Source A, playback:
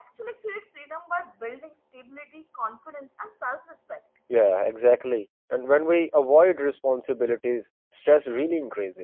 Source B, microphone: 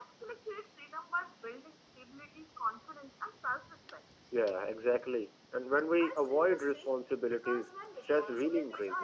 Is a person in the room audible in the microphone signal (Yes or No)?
Yes